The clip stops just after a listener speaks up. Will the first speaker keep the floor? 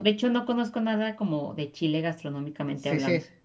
No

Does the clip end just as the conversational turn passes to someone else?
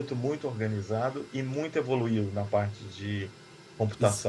Yes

